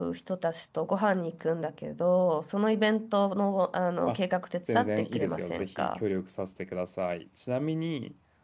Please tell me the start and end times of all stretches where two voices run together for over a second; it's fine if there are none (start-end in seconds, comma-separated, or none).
4.6-6.0